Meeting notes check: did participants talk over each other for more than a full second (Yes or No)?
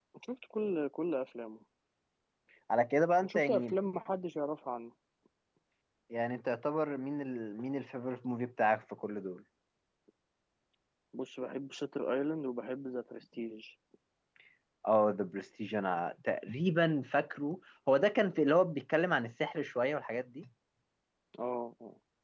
No